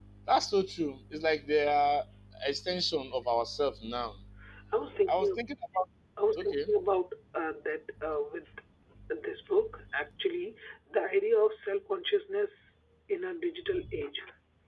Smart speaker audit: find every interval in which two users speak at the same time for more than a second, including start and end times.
none

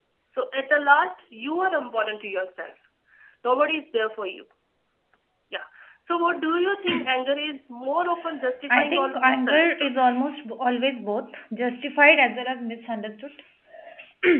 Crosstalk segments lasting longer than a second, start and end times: 8.7-10.0

